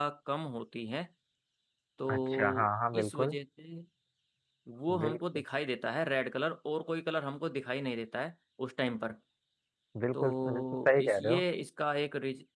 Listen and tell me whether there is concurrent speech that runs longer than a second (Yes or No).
Yes